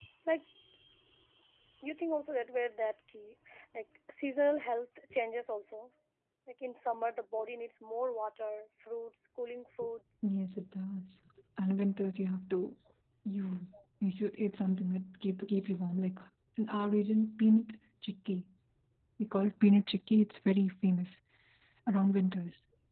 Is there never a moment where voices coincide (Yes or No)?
Yes